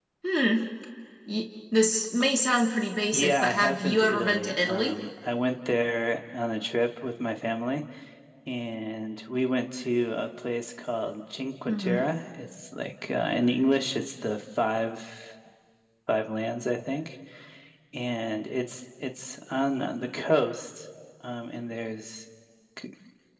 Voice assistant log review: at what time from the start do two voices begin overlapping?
3.1 s

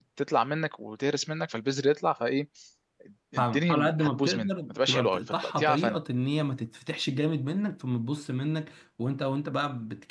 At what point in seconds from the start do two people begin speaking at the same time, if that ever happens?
3.4 s

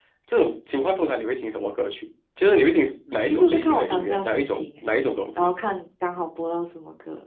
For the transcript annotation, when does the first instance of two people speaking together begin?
3.3 s

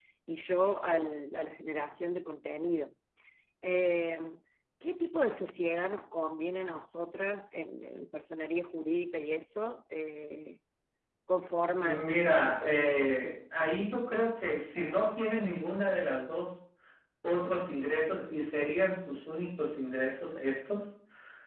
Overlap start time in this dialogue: 11.8 s

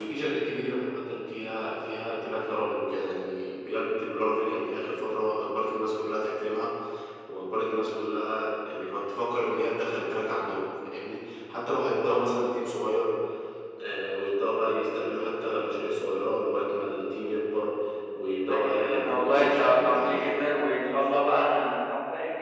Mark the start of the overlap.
18.5 s

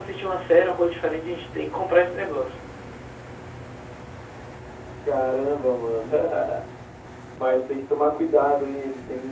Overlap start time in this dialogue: none

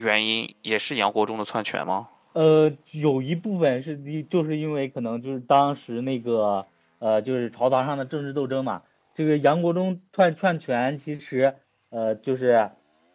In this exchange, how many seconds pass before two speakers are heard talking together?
none

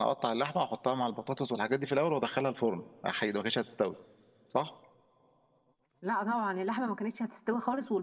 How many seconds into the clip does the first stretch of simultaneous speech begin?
none

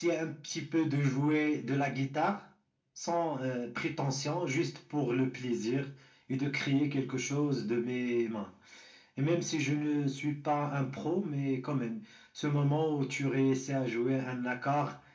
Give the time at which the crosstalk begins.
none

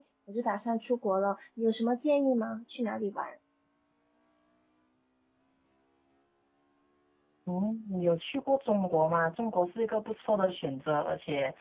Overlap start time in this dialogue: none

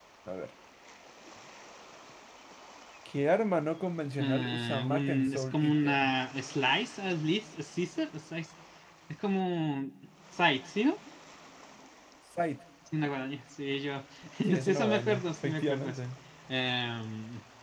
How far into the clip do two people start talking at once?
4.2 s

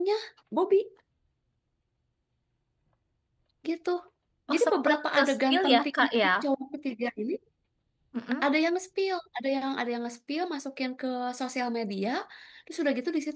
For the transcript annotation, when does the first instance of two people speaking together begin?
4.5 s

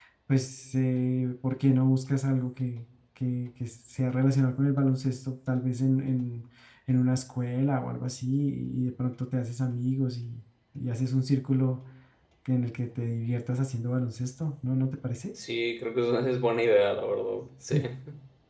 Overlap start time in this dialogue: none

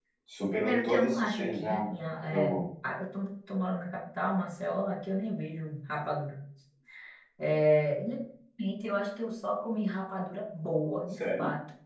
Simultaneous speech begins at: 0.5 s

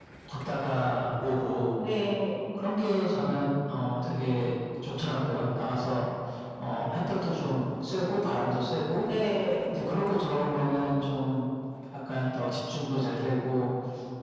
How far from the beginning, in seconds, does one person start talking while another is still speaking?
none

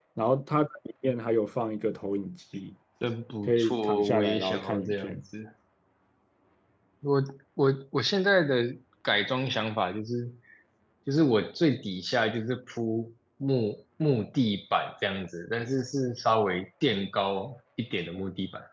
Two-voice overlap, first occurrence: 3.5 s

